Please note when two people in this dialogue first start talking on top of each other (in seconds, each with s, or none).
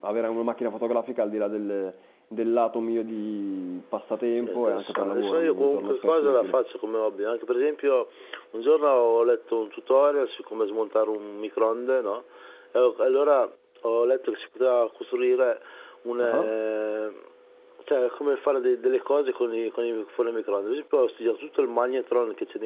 4.4 s